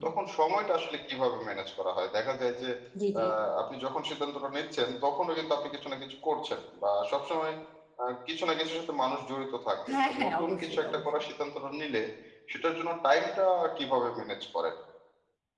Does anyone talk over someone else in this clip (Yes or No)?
Yes